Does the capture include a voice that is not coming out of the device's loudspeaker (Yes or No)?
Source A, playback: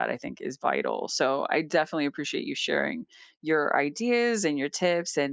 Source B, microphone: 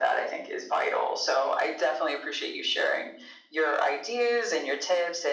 No